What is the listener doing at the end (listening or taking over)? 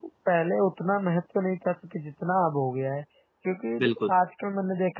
listening